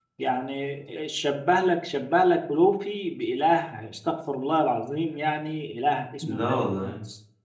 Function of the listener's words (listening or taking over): listening